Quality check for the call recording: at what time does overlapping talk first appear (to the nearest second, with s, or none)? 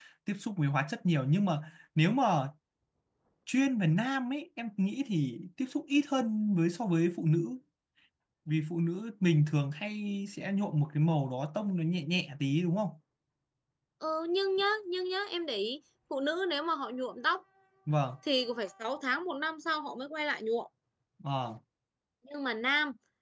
none